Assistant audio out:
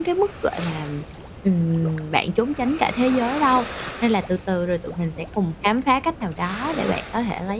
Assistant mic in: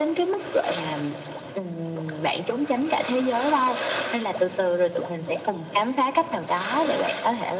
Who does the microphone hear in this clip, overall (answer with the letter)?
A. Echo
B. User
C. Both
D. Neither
A